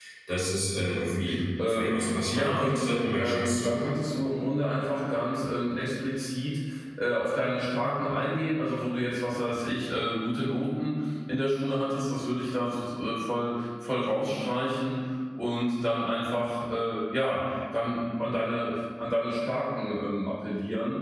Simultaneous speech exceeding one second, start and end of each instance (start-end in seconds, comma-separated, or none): 1.7-3.9